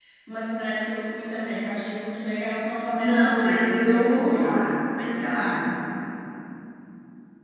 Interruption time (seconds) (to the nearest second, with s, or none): 3 s